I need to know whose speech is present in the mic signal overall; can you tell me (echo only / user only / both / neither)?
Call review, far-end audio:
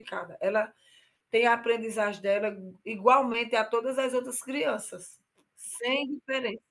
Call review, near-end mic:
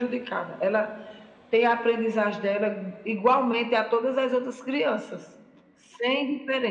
echo only